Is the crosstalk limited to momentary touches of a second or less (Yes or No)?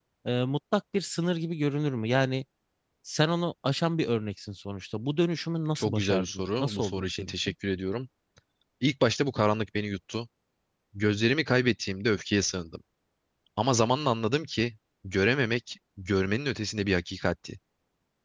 No